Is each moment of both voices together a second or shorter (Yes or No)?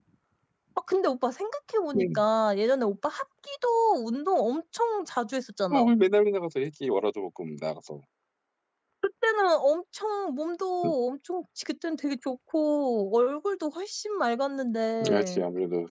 Yes